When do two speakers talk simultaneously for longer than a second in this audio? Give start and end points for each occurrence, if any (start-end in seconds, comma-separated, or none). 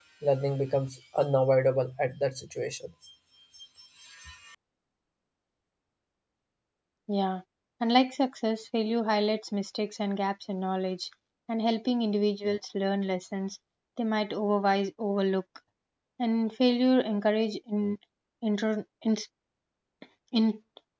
none